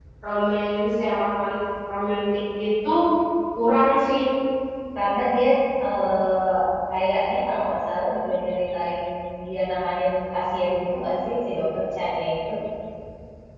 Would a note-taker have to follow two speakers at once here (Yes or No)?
No